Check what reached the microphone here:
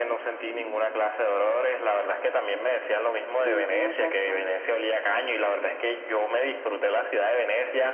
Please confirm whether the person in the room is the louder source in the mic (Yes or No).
No